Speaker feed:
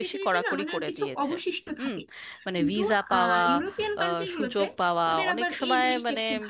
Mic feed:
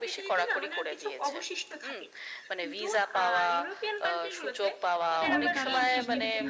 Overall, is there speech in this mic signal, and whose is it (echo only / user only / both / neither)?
both